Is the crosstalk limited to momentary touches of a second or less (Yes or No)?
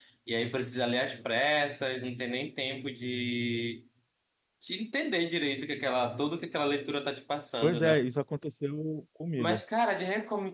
Yes